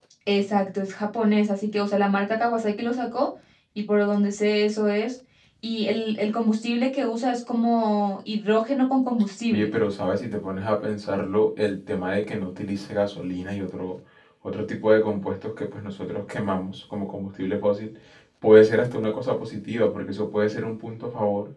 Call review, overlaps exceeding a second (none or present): none